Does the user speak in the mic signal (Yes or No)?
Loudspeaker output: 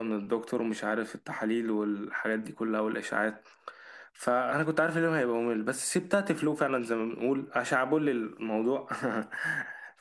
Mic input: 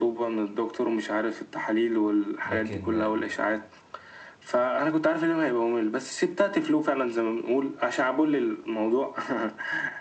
Yes